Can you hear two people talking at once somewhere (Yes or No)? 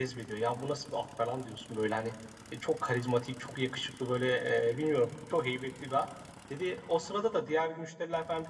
No